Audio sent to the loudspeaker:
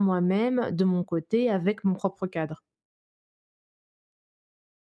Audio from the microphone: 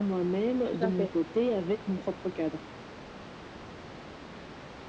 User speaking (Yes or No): Yes